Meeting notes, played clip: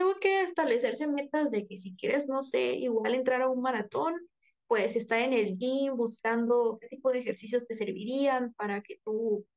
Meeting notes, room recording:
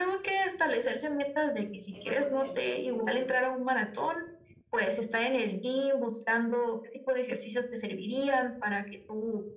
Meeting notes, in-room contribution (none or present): present